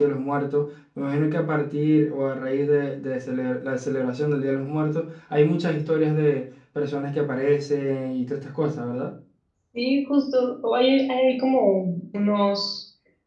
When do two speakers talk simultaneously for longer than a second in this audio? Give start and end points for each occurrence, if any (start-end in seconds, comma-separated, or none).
none